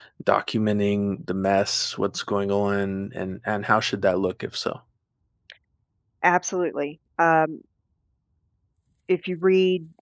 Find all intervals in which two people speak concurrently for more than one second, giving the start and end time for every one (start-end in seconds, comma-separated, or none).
none